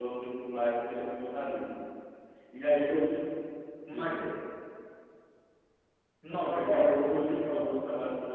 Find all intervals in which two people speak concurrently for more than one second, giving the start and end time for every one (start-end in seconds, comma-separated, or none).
6.3-7.7